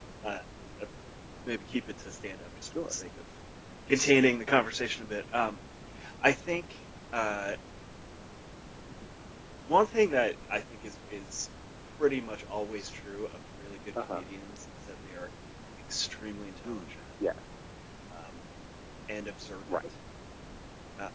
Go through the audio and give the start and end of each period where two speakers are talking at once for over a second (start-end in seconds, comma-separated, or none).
none